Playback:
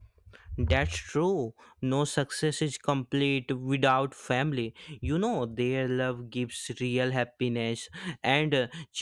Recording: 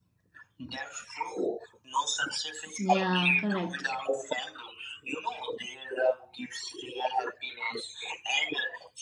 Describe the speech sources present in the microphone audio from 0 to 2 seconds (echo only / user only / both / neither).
echo only